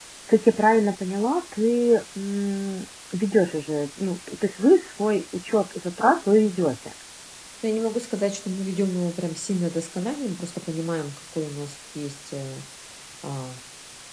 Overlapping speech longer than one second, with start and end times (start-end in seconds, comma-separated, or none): none